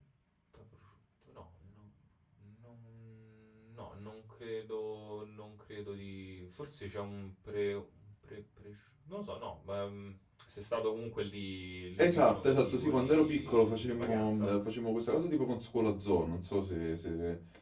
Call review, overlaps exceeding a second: present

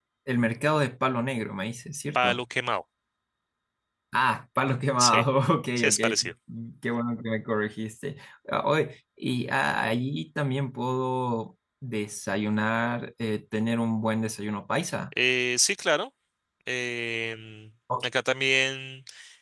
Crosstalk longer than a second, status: none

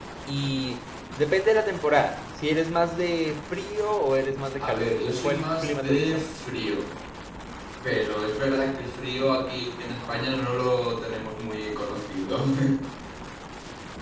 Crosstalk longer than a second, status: present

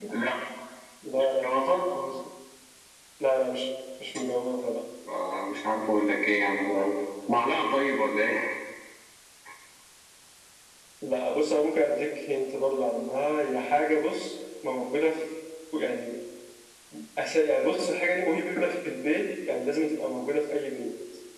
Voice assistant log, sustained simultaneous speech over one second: none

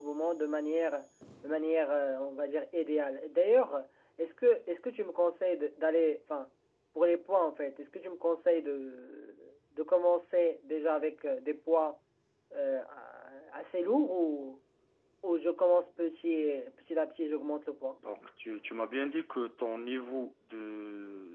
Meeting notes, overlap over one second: none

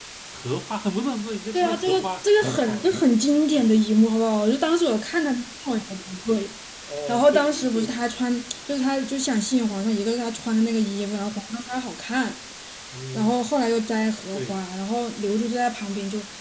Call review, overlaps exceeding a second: present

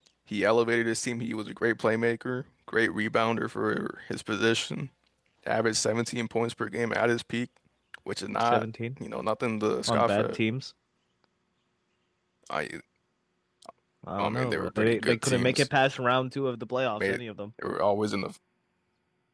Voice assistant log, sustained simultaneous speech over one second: present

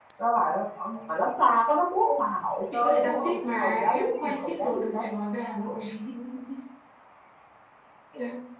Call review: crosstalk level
present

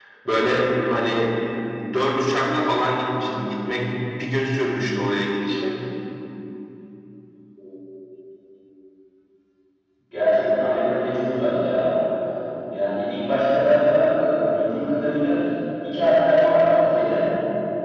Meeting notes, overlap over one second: none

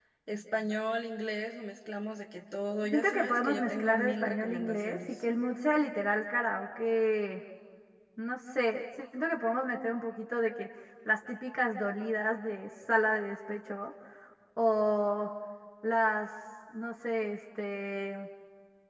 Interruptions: present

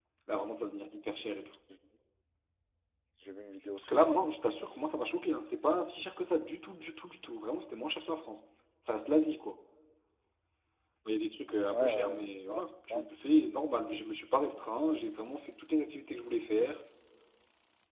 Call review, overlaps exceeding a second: present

